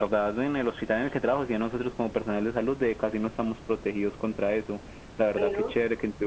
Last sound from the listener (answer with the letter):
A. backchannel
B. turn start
A